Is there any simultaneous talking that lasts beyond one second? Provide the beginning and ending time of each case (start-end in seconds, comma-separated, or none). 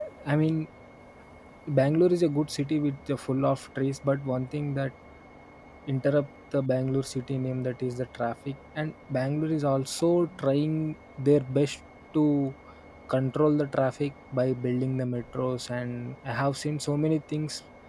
none